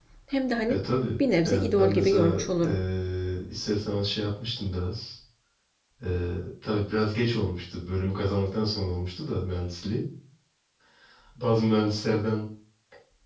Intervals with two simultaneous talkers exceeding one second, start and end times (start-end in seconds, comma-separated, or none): 1.4-2.8